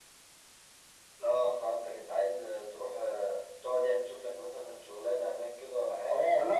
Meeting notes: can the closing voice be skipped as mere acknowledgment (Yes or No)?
No